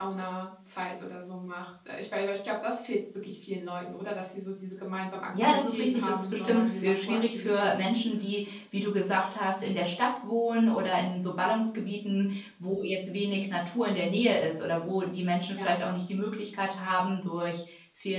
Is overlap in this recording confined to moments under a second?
No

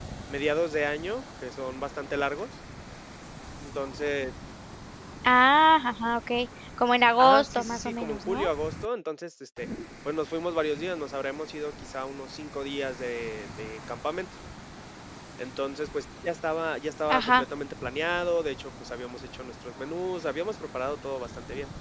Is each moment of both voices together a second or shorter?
No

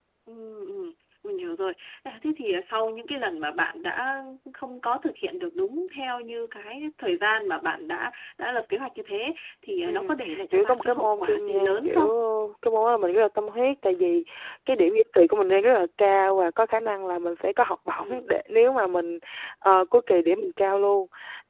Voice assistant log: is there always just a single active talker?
No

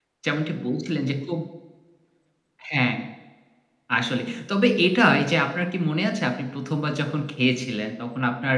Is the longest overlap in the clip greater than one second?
No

